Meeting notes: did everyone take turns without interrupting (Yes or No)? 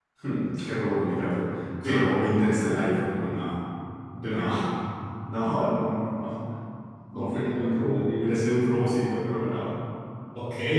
No